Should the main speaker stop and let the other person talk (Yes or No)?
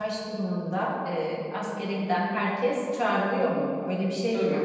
Yes